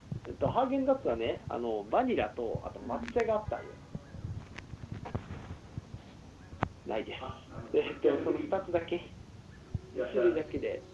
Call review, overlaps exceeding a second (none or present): present